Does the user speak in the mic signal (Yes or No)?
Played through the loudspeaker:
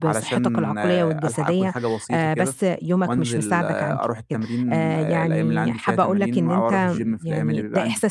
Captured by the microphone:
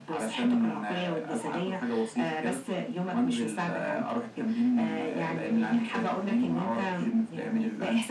No